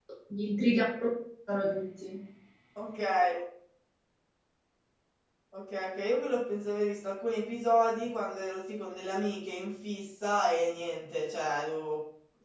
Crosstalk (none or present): none